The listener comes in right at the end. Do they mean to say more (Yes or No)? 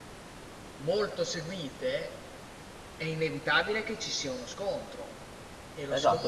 Yes